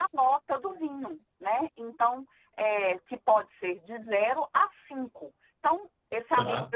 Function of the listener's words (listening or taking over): listening